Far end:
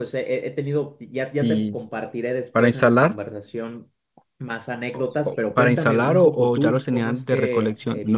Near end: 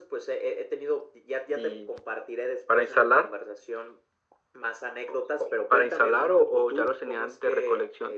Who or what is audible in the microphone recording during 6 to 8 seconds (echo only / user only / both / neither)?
echo only